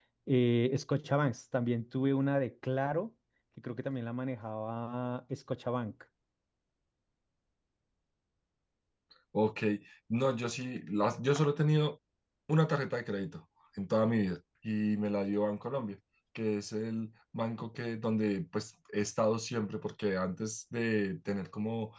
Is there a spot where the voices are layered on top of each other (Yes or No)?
No